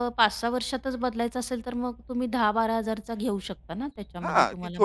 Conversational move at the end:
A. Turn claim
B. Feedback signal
A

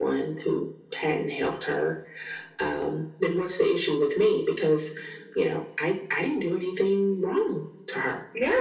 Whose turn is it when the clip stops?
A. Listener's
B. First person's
A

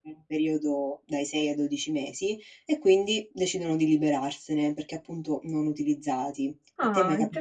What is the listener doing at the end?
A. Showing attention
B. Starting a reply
B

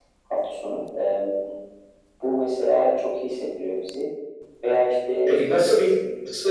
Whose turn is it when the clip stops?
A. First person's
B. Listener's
B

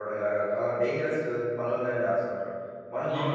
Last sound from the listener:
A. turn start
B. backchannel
A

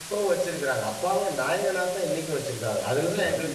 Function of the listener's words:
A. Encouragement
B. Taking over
A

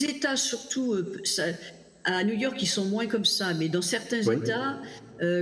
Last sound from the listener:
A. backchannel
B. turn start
A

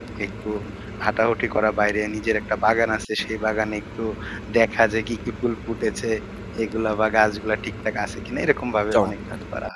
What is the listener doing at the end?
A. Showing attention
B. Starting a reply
B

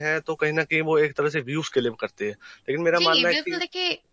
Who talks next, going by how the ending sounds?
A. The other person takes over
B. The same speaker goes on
A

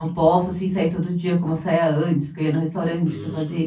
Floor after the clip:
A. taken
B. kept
A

